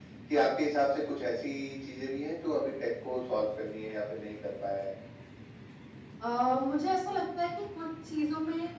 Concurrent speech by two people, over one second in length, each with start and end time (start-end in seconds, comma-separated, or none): none